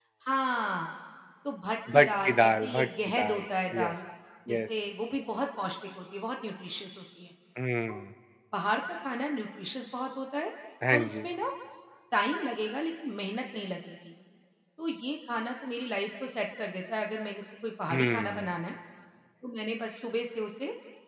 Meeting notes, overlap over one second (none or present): present